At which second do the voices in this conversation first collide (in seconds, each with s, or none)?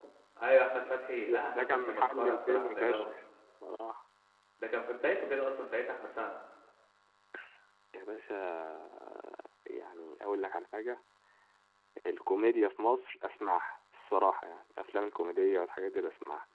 1.1 s